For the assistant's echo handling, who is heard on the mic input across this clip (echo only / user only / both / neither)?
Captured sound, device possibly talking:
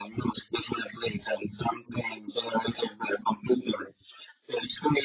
echo only